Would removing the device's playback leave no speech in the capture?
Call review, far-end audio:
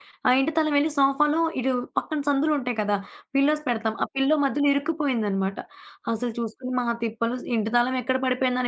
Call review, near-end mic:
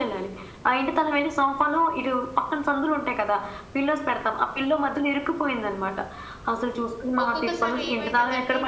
No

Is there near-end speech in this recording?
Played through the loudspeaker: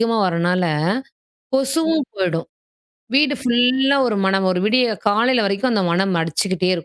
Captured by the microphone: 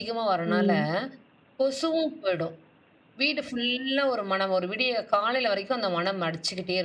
Yes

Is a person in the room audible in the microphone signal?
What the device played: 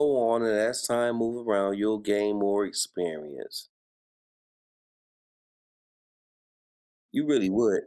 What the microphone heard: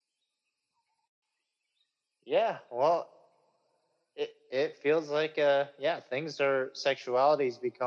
Yes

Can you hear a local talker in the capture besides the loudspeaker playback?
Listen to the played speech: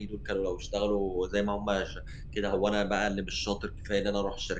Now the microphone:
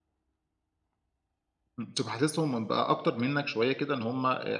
Yes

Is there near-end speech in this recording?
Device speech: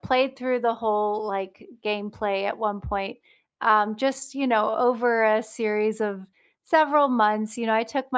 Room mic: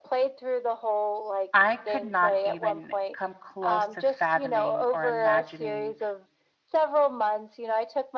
Yes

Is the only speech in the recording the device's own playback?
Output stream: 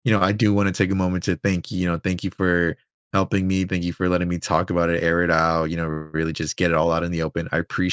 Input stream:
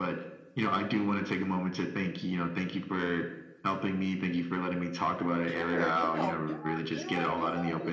No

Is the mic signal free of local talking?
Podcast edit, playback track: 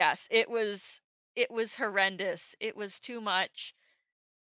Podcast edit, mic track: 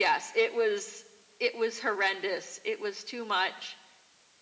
Yes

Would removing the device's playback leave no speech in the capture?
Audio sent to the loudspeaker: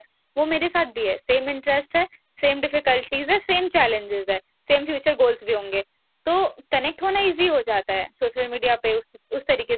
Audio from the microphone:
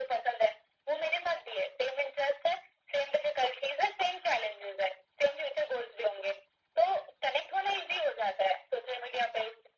Yes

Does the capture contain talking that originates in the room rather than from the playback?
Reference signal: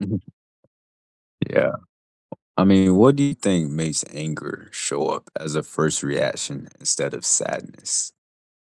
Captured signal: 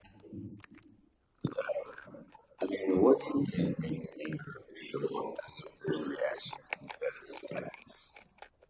No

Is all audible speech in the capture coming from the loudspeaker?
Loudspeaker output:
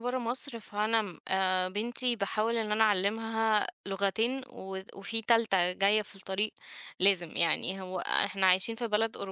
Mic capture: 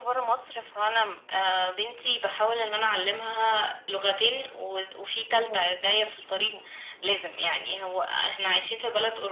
No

